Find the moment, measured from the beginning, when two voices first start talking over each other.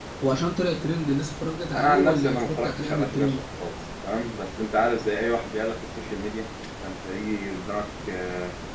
1.7 s

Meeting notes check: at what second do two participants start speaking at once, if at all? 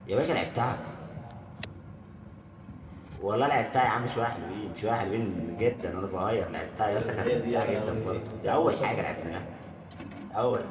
6.9 s

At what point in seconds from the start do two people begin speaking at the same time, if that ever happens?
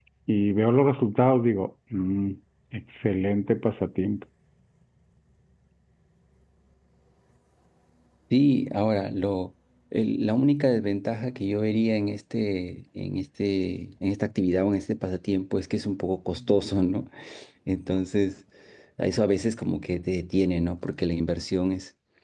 none

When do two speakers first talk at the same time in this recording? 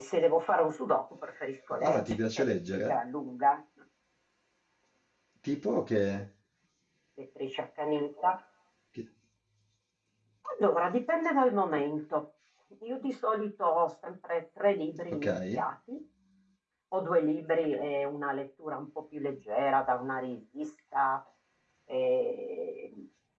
1.7 s

